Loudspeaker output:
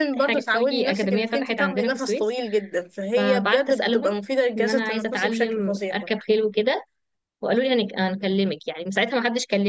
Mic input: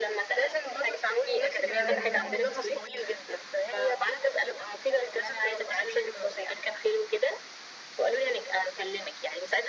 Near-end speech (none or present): present